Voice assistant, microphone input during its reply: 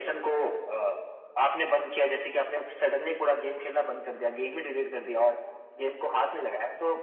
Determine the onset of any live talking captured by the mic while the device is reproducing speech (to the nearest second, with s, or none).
none